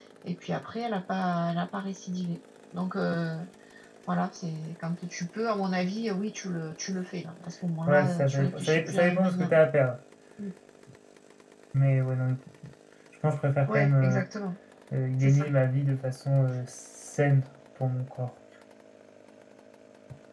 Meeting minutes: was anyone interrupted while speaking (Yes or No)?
Yes